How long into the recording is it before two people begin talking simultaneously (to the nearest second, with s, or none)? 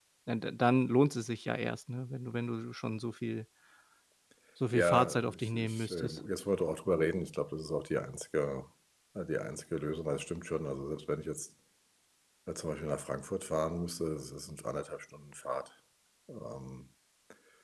5 s